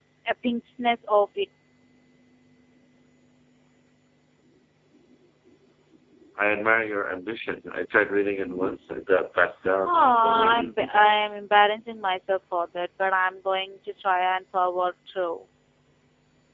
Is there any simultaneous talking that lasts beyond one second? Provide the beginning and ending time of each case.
9.8-11.4

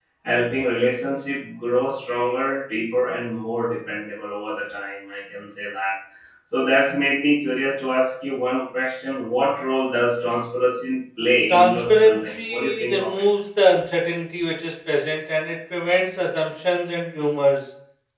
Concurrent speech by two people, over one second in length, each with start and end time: 11.5-13.2

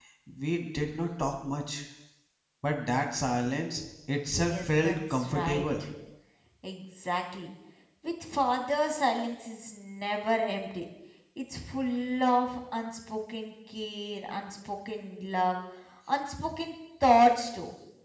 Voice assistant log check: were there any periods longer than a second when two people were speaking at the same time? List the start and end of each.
4.5-5.8

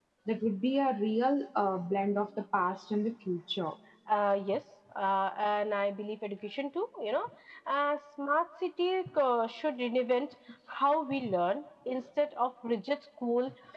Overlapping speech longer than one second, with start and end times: none

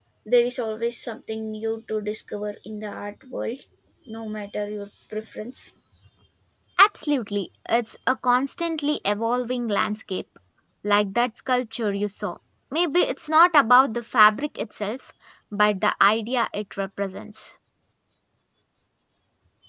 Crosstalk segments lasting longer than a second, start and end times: none

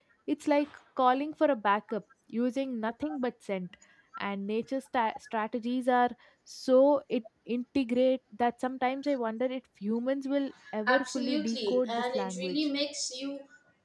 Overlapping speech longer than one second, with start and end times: 10.9-12.6

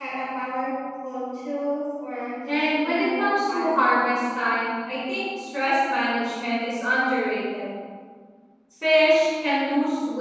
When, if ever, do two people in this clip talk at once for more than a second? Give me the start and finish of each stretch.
2.5-4.0

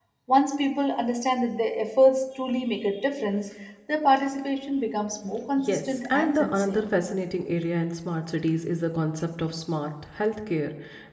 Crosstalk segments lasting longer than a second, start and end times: 5.6-6.8

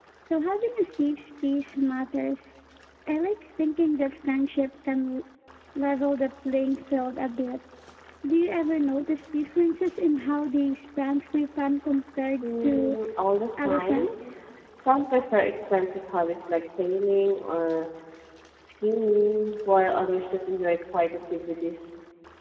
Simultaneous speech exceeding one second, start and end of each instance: none

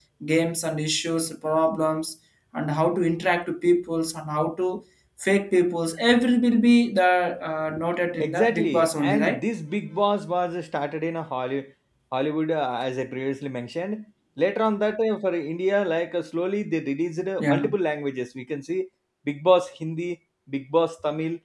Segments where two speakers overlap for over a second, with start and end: 8.2-9.4

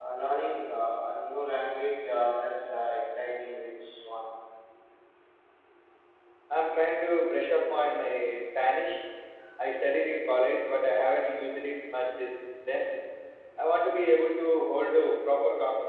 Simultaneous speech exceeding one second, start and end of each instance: none

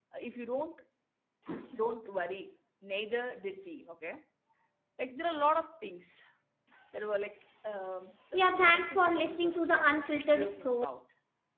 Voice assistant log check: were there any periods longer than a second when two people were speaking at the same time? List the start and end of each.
8.3-10.8

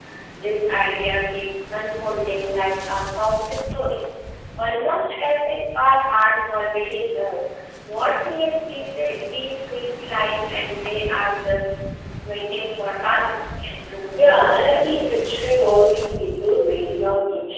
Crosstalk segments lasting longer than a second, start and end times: 14.2-15.4

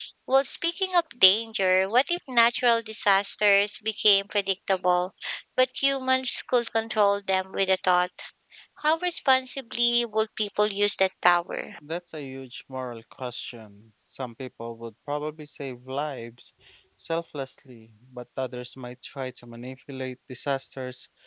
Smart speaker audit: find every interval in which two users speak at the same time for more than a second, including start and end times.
none

